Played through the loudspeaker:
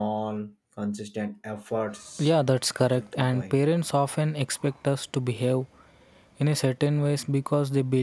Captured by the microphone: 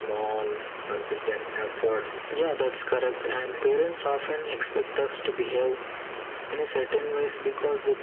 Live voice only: none

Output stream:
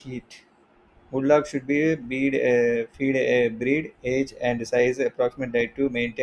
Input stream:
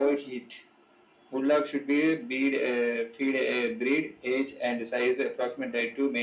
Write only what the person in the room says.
none

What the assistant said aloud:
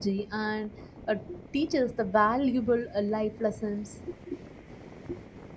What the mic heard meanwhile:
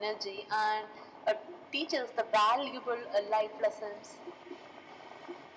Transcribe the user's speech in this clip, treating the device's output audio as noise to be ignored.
none

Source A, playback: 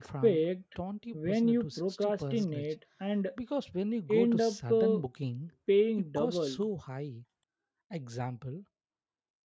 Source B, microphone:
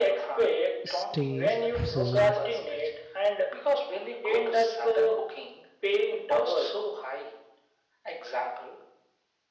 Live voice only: stay, food,

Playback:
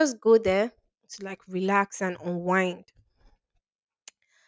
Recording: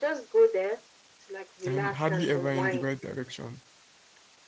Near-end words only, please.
and hardly ever in the right direction.

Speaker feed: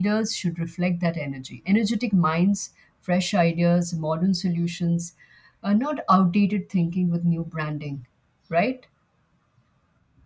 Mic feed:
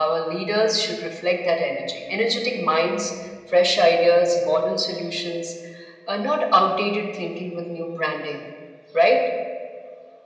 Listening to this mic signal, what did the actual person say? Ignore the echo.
none

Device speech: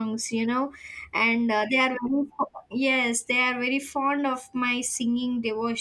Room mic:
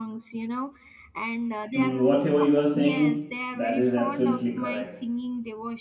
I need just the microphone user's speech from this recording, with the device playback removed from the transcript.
Mm, Whatever you are saying, that is absolutely correct.

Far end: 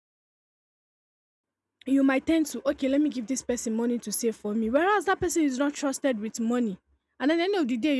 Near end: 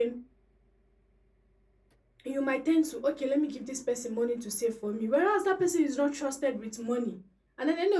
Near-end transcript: none

